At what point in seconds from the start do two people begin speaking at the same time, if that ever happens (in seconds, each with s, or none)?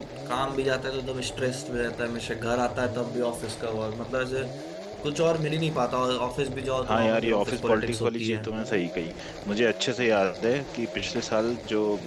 6.8 s